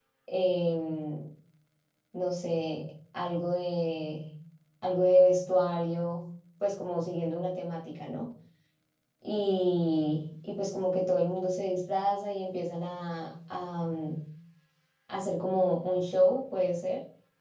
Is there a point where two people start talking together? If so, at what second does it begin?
none

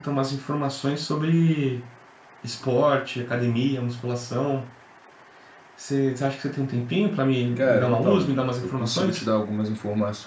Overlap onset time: 7.6 s

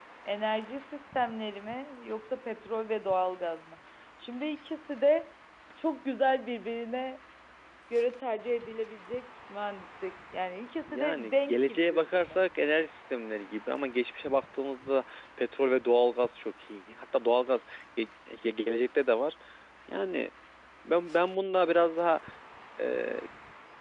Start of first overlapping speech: 10.9 s

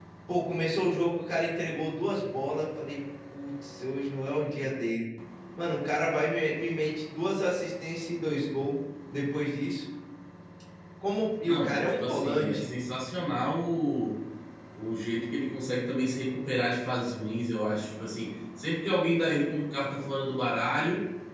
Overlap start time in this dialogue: 11.4 s

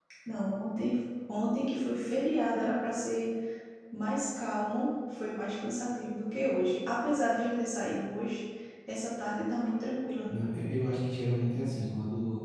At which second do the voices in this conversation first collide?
none

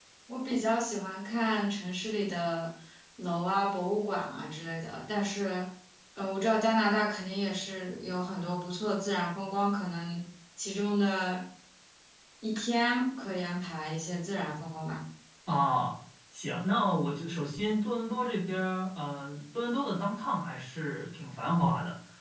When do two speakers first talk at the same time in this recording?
none

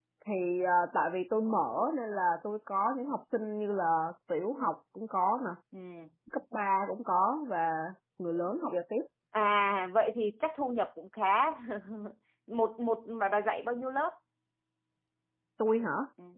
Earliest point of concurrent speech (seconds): none

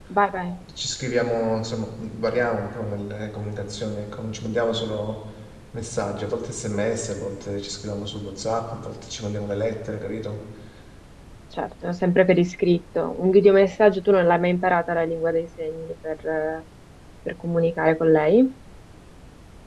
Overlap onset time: none

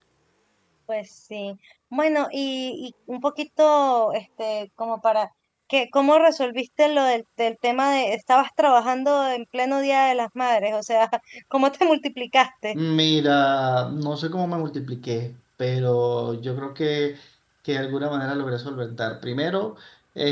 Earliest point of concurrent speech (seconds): none

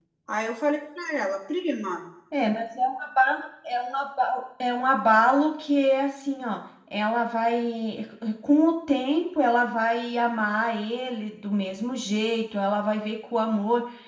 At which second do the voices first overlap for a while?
none

